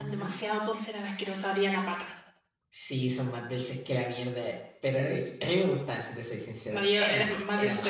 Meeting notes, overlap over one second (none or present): present